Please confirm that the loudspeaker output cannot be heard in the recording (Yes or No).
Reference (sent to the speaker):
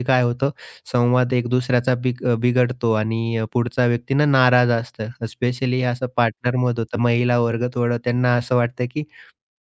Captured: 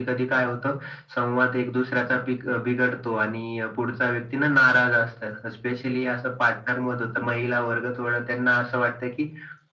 No